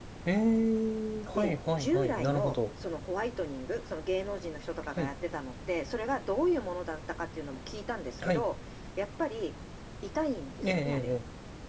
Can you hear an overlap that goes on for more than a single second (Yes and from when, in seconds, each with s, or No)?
Yes, from 1.4 s